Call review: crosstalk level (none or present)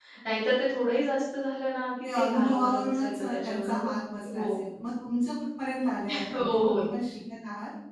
present